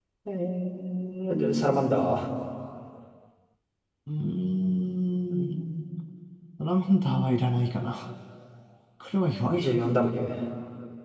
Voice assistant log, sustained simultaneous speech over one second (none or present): none